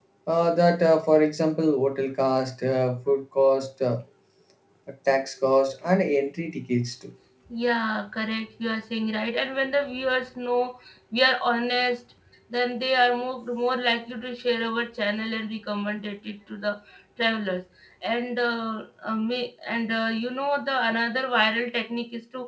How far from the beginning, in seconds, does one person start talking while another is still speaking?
none

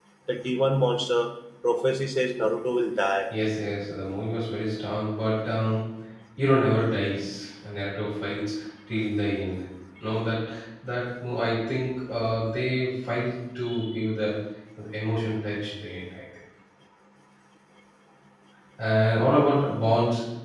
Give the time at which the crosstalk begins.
none

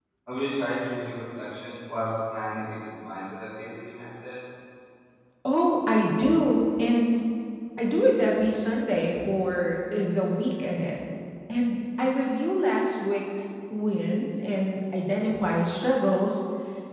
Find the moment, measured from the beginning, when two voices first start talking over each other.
none

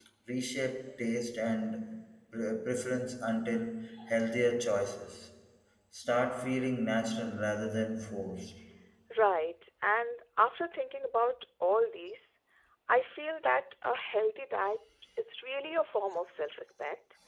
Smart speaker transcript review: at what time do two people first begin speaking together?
none

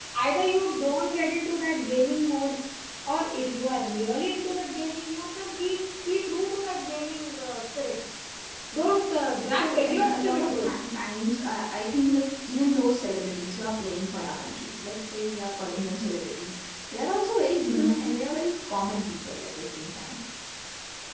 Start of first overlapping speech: 9.5 s

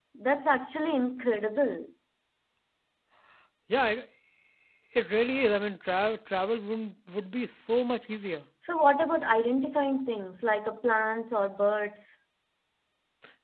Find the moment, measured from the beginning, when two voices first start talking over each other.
none

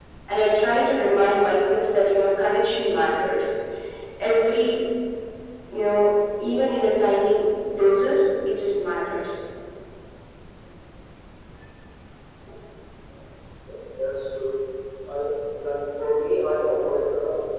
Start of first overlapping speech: none

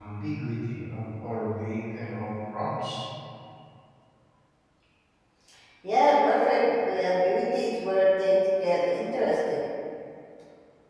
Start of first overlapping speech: none

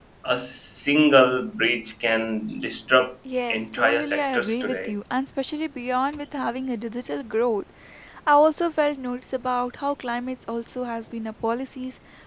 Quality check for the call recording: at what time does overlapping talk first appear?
3.5 s

